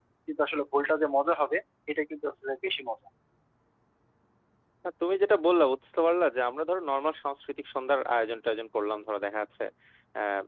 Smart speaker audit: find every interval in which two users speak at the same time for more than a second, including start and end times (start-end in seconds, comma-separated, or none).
none